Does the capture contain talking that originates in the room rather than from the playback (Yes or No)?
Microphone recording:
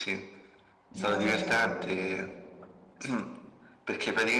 Yes